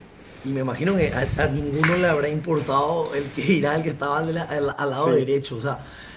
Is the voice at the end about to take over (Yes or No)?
No